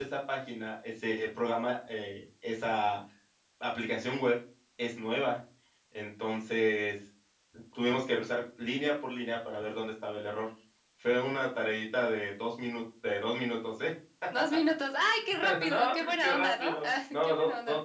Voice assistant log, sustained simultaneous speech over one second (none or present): present